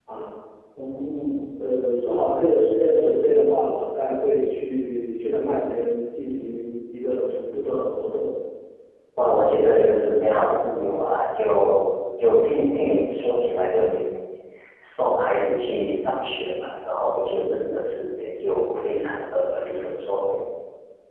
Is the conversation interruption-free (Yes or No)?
Yes